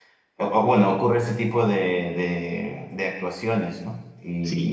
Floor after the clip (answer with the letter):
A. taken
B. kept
A